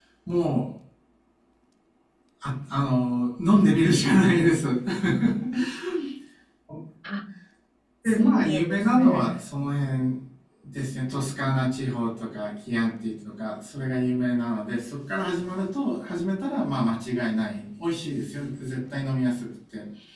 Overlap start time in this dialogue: 8.1 s

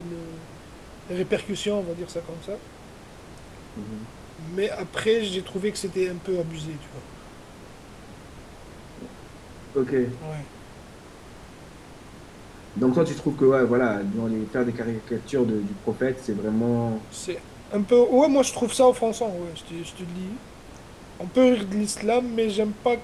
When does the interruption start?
none

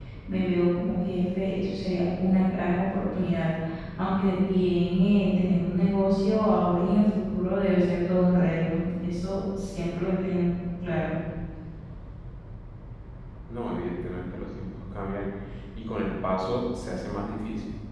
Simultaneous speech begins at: none

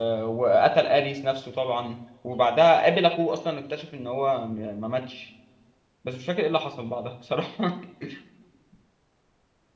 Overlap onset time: none

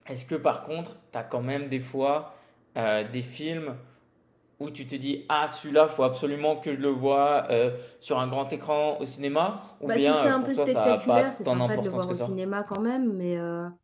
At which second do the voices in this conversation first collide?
9.9 s

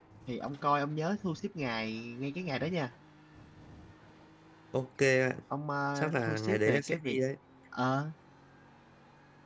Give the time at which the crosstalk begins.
6.0 s

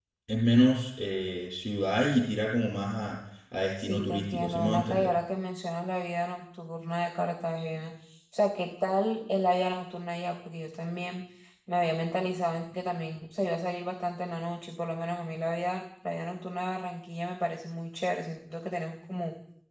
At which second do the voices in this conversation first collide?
3.8 s

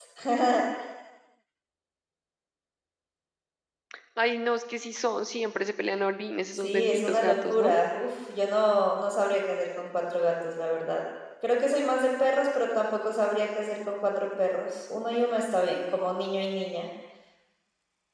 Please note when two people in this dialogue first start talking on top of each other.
6.5 s

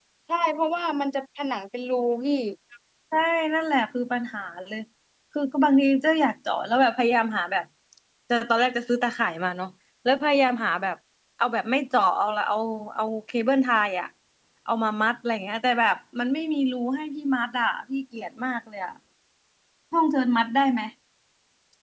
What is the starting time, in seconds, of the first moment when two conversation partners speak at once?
none

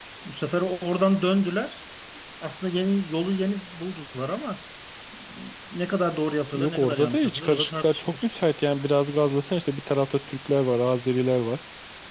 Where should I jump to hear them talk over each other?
6.5 s

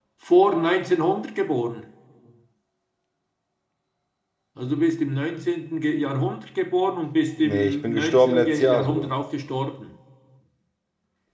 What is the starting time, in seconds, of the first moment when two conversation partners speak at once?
7.4 s

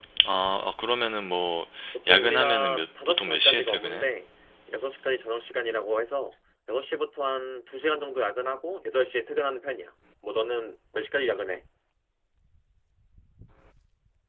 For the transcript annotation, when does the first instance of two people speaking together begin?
2.1 s

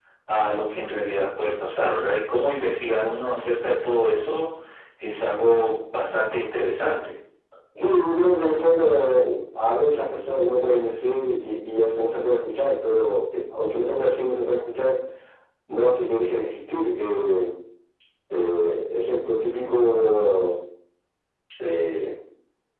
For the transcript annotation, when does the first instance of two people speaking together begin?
none

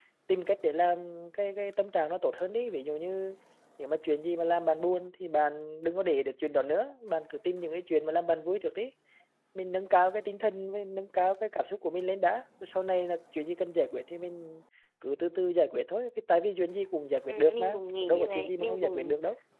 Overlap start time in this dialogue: 17.3 s

